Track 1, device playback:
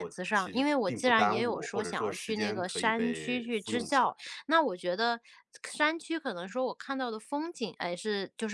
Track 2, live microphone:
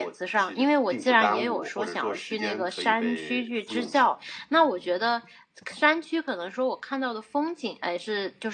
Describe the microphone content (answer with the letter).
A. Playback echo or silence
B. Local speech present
A